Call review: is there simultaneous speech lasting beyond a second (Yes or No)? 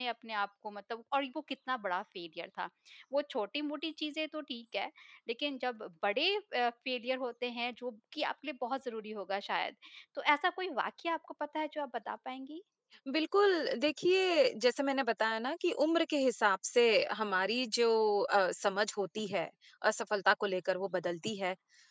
No